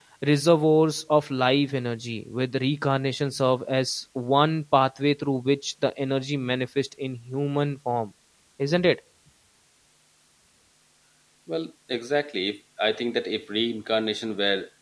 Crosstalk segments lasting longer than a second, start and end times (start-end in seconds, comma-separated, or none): none